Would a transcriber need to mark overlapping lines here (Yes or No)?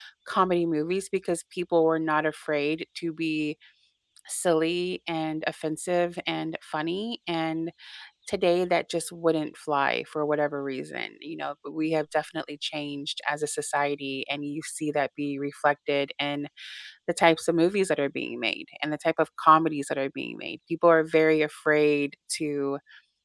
No